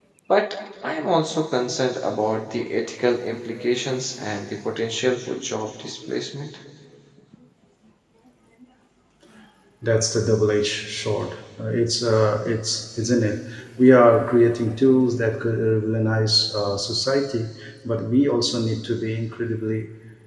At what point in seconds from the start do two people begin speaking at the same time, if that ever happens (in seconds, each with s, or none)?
none